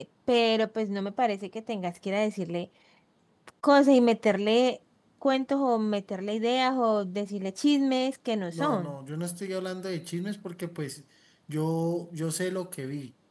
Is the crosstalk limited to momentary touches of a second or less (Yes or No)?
Yes